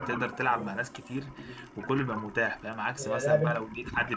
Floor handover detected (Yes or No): No